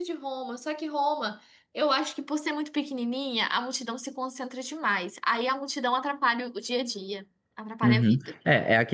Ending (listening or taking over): taking over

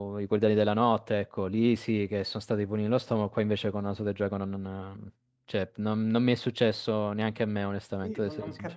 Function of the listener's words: taking over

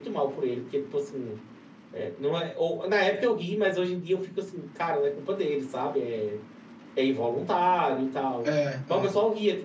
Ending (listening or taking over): listening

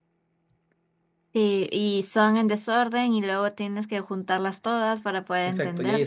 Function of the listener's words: taking over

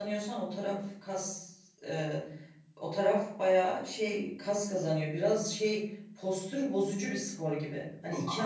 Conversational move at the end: listening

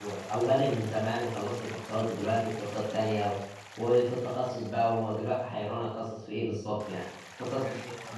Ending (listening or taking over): listening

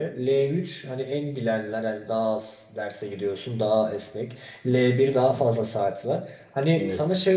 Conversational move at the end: listening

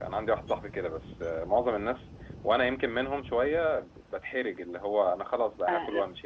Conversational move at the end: taking over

